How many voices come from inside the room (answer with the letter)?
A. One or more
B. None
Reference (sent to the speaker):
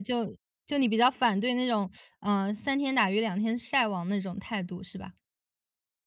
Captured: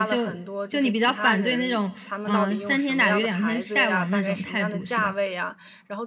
A